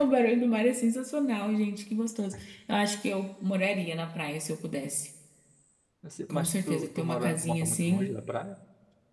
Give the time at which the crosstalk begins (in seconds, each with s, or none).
6.3 s